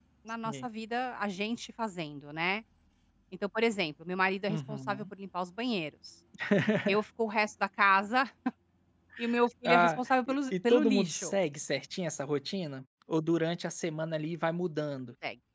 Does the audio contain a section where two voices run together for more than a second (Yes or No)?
Yes